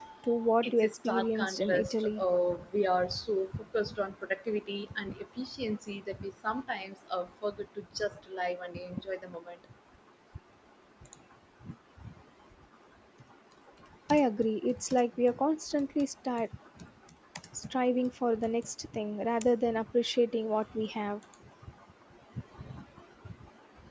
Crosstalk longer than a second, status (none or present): present